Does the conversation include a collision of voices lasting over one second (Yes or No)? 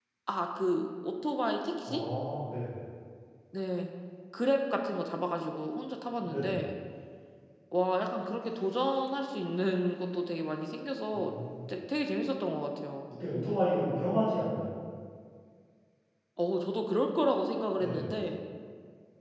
No